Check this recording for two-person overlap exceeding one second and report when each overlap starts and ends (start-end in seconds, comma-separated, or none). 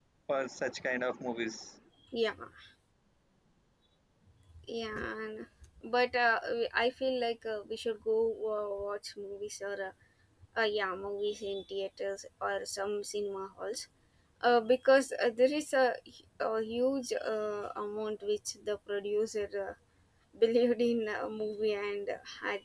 none